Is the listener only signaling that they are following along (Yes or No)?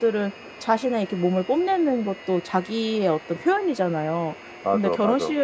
Yes